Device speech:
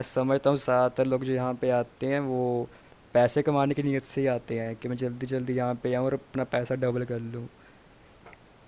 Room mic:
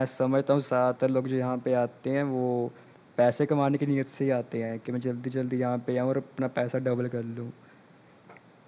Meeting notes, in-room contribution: none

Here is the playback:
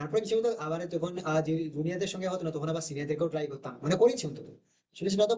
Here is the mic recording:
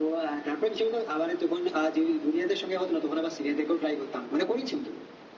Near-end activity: none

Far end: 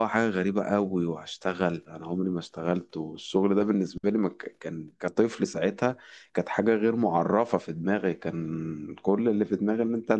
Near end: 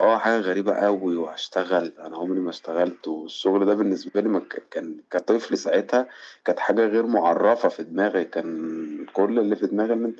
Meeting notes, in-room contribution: none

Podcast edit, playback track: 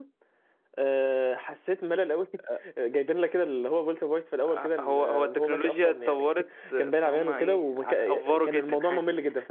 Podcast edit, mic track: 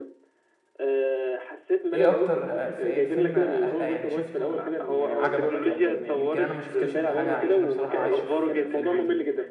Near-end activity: present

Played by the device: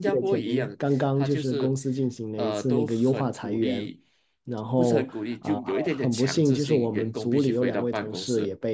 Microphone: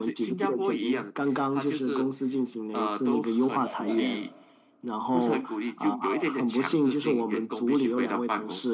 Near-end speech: present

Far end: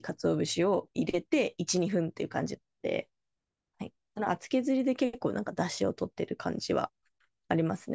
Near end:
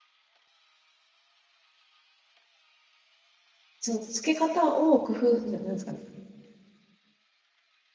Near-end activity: present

